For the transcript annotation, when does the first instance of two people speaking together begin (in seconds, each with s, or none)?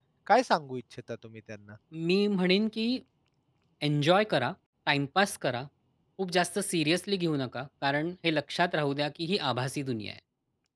none